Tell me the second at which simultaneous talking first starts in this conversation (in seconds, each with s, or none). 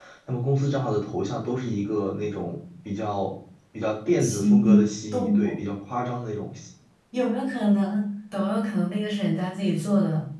4.2 s